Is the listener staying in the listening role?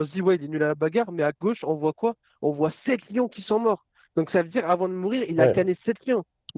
Yes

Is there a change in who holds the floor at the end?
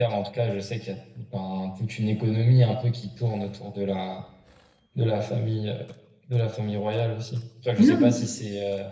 No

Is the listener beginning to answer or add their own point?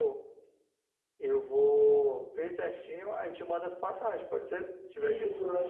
Yes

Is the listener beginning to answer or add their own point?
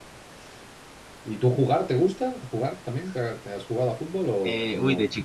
Yes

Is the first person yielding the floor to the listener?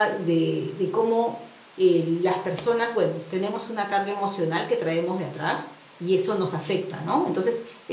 No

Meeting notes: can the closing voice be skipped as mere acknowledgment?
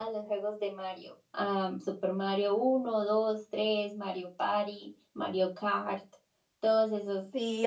No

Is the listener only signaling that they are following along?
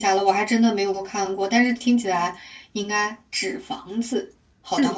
No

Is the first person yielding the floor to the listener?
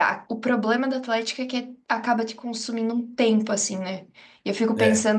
No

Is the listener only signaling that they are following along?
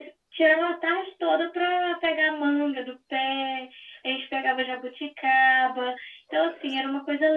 Yes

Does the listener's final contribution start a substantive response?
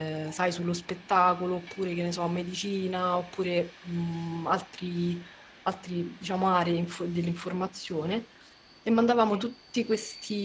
No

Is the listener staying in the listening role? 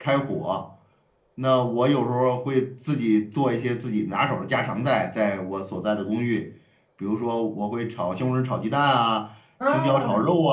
Yes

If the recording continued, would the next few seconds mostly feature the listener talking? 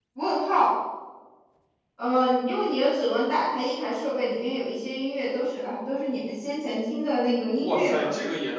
Yes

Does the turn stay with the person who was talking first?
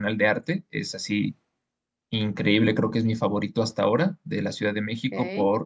Yes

